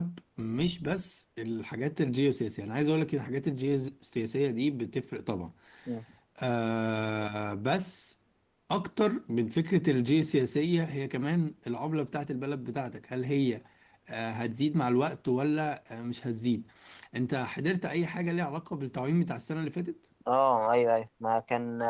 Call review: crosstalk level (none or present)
none